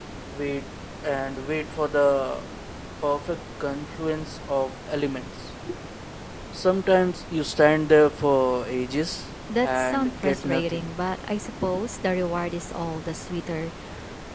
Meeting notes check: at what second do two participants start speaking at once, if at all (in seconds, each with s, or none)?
9.5 s